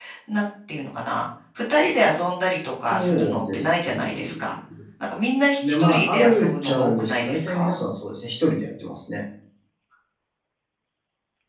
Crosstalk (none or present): present